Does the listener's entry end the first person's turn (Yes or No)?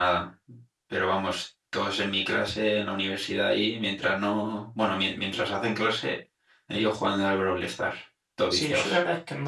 Yes